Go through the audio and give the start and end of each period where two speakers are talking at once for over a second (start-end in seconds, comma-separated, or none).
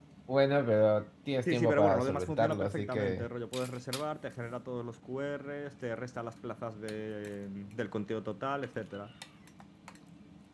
1.5-3.3